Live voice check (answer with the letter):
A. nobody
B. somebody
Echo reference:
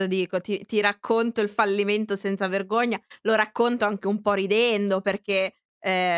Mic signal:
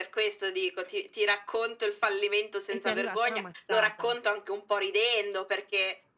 B